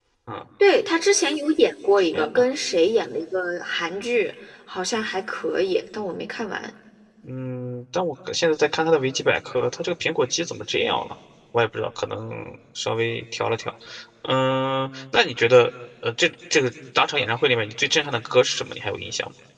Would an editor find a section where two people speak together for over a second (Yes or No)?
No